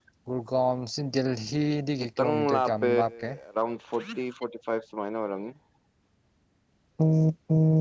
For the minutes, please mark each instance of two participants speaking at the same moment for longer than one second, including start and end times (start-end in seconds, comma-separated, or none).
2.0-3.3